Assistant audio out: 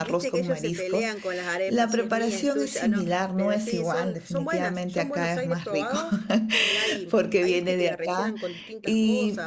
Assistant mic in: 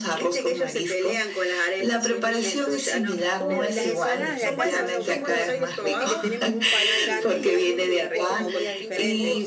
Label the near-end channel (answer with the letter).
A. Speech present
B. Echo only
A